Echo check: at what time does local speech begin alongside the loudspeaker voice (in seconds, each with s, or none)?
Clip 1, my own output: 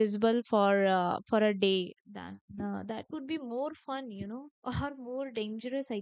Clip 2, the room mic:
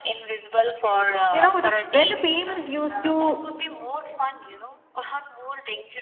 1.3 s